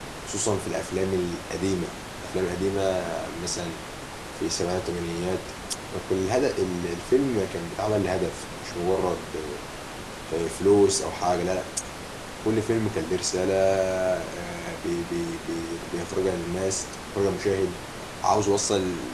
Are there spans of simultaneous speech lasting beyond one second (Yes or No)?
No